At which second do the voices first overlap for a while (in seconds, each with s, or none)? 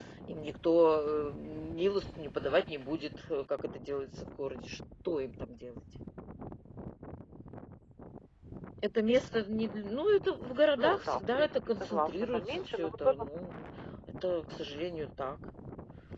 10.8 s